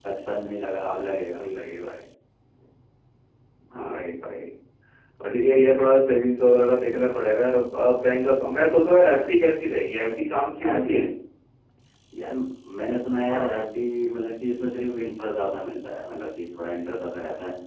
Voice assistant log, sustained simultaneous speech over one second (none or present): none